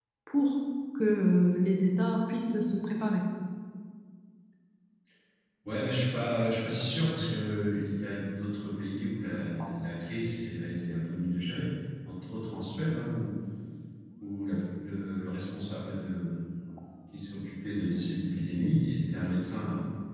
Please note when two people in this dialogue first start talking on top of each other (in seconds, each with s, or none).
none